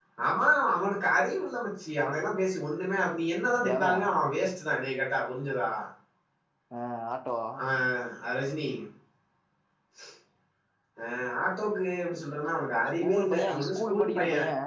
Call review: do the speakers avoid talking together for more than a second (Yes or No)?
No